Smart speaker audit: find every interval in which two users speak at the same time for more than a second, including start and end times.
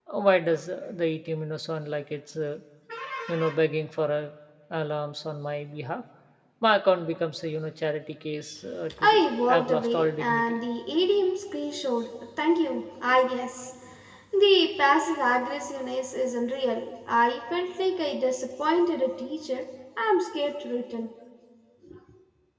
9.0-10.6

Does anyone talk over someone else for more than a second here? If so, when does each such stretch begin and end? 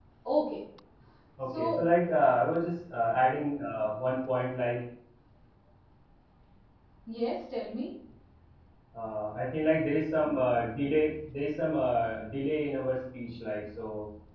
none

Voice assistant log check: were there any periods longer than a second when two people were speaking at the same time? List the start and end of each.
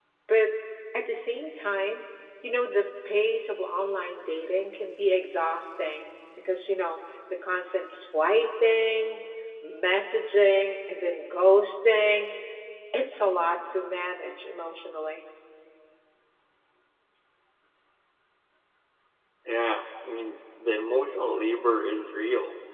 none

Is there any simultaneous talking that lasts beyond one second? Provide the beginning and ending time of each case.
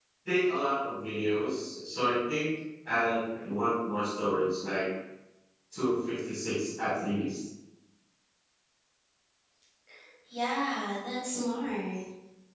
none

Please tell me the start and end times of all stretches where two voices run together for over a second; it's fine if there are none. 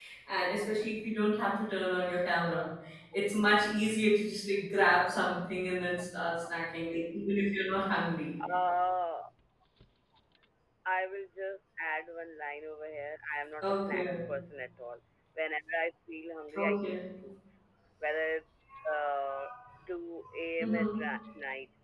none

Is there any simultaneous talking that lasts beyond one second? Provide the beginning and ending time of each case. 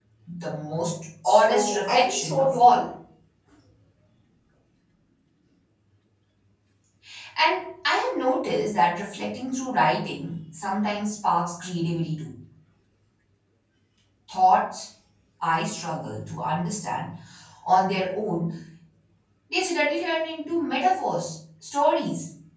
1.2-2.8

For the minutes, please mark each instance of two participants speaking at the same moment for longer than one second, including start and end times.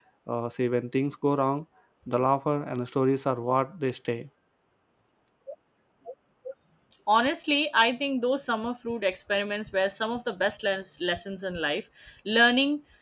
none

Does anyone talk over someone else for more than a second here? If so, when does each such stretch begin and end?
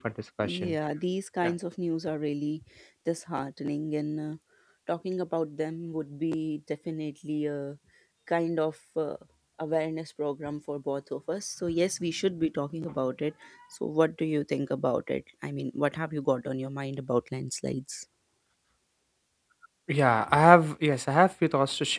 none

